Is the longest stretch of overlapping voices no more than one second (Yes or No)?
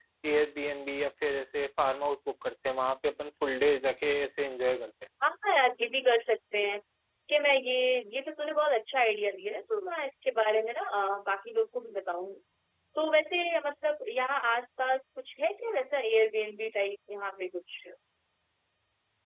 Yes